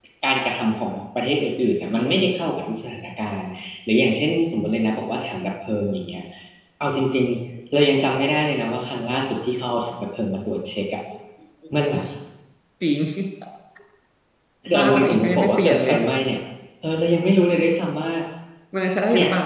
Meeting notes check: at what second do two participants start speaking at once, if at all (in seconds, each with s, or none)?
14.7 s